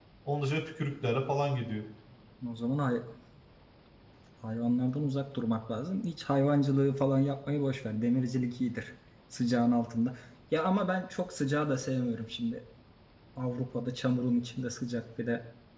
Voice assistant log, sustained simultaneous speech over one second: none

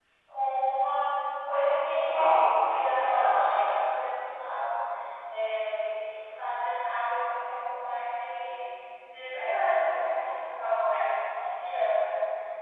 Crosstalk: present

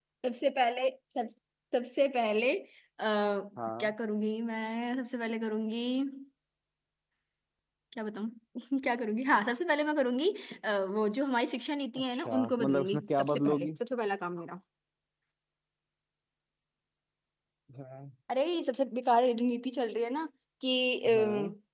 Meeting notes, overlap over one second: present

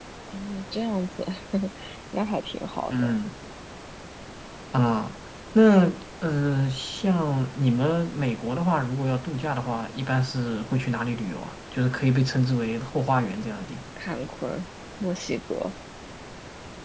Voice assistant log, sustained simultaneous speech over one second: none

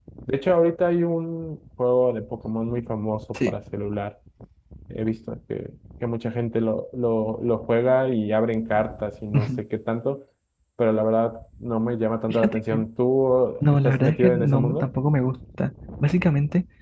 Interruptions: present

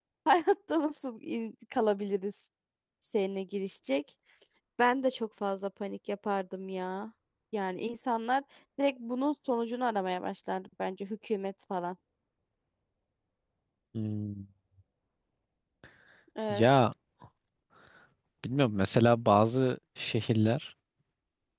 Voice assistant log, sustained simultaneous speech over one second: none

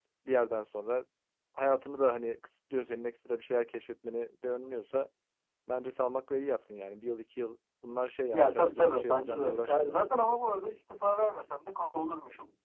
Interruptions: present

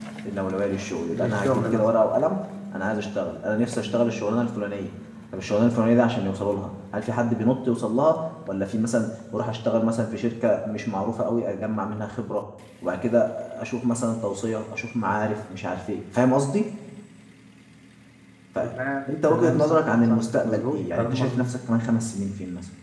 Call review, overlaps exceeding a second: present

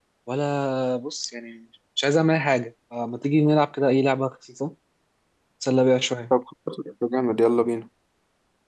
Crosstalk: none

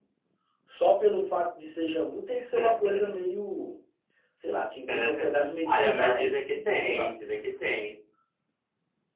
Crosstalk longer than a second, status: present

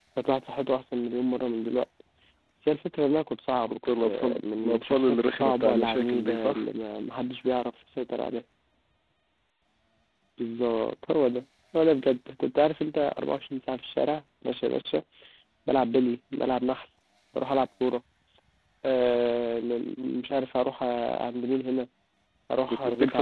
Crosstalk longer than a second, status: present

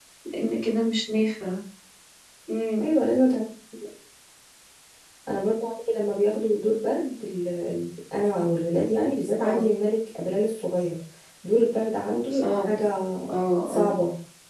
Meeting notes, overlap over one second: none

